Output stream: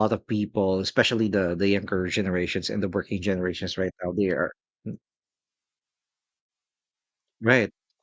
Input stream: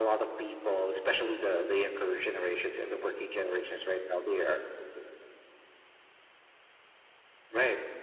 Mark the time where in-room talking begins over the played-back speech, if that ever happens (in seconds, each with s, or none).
none